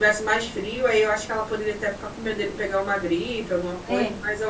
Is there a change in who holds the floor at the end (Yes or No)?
Yes